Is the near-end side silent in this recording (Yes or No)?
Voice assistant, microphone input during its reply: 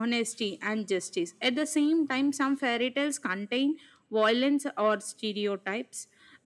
Yes